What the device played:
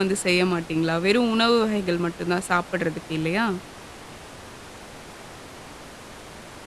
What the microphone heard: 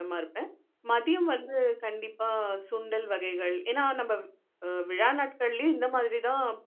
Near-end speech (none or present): present